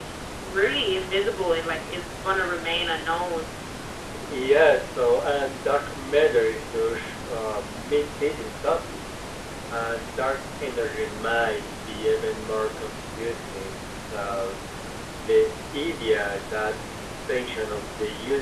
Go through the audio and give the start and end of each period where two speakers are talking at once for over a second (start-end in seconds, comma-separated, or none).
none